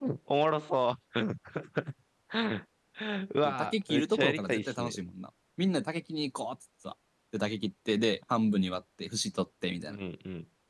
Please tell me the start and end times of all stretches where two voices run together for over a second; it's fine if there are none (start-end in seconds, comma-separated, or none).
3.6-4.9